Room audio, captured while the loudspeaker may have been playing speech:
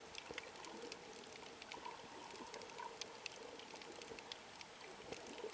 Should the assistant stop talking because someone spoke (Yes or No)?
No